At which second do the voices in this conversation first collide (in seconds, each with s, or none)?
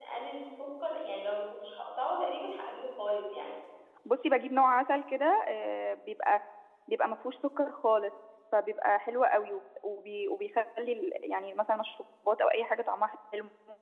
none